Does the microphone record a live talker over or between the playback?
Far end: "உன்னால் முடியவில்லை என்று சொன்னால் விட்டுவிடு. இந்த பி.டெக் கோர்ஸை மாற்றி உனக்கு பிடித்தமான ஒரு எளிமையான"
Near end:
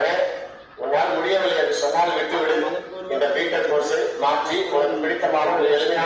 Yes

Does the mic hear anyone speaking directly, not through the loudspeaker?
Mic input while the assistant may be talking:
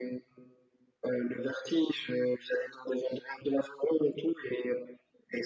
No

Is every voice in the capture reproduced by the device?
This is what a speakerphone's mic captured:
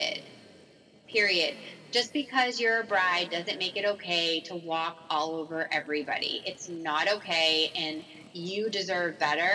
Yes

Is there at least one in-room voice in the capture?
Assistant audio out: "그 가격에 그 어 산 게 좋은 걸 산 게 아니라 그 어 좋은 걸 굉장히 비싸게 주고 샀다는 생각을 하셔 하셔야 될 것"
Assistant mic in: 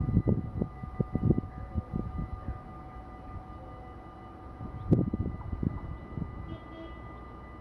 No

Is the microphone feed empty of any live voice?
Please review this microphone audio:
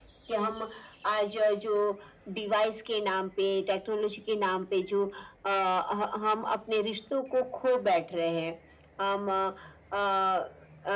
Yes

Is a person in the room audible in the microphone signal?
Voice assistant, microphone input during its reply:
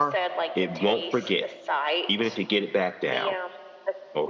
Yes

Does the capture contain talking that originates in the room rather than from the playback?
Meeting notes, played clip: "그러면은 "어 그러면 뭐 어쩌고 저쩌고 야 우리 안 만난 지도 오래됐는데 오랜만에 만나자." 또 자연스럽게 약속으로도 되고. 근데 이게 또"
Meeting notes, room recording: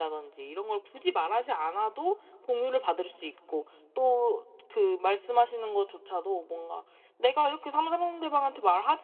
Yes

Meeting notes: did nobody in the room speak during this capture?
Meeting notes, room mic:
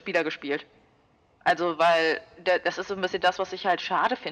Yes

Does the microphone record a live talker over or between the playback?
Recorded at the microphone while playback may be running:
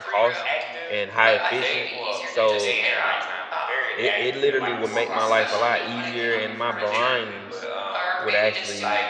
Yes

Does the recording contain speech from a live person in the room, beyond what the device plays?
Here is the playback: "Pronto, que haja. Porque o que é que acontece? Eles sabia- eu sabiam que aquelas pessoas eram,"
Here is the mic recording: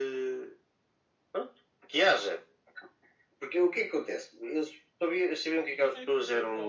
Yes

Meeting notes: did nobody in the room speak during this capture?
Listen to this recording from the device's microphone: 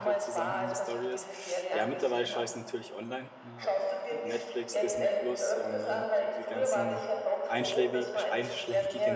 No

